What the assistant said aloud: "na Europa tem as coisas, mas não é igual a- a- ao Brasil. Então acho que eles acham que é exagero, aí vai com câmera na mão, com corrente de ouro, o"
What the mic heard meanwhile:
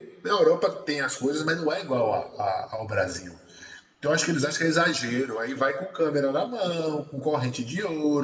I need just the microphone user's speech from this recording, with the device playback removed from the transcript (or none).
none